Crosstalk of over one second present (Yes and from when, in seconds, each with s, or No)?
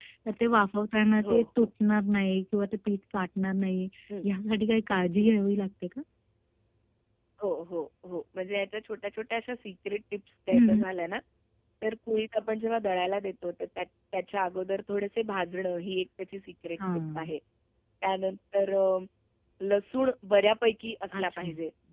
No